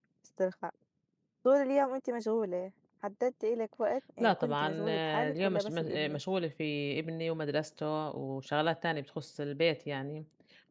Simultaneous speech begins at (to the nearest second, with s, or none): 4 s